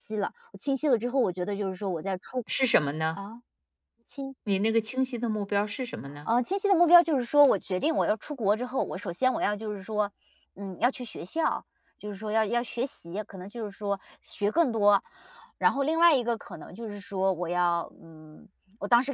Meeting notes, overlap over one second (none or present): none